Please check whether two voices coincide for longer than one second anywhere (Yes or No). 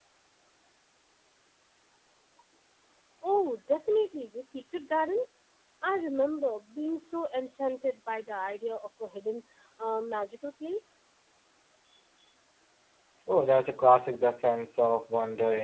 No